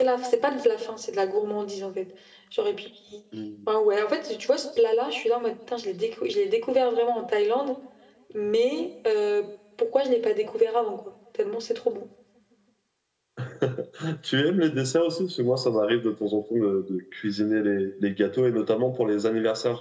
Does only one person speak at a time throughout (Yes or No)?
Yes